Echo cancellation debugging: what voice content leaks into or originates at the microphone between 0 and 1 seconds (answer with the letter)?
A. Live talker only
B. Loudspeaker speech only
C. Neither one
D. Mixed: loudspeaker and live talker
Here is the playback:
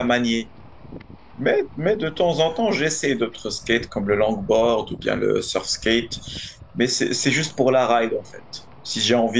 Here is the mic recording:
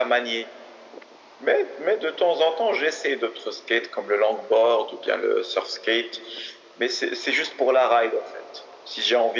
B